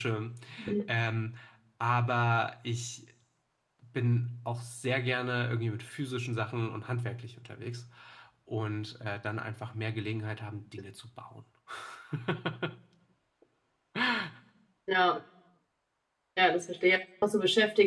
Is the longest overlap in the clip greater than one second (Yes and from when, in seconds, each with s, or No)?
No